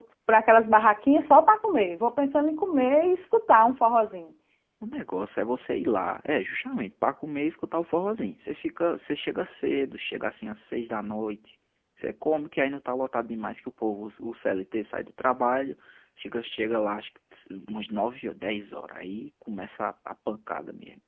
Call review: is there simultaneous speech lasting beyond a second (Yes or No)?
No